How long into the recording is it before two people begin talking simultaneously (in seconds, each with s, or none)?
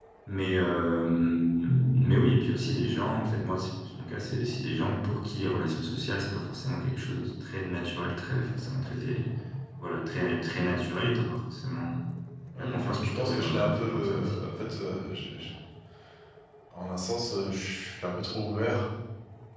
12.6 s